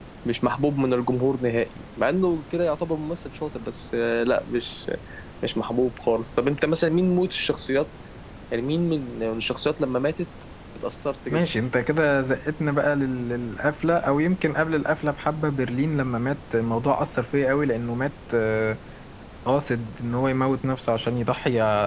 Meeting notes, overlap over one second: none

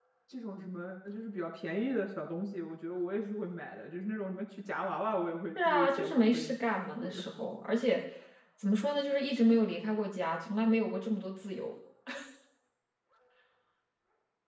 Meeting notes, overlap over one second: present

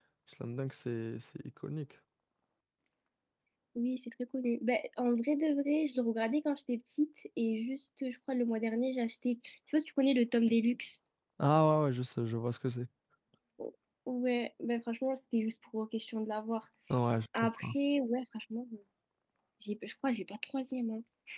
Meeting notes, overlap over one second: none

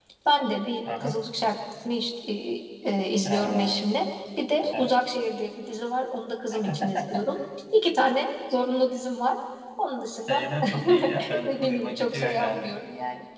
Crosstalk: present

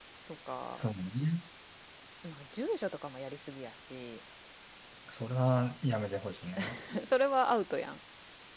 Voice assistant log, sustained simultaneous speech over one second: none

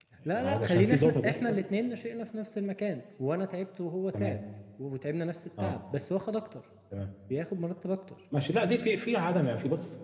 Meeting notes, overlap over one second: present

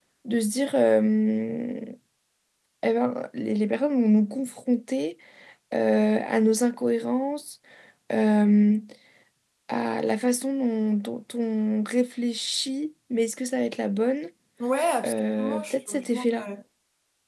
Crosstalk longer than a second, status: present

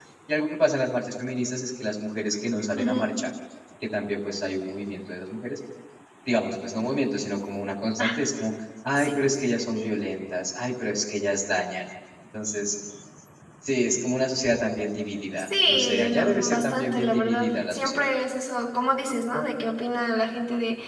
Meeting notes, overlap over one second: present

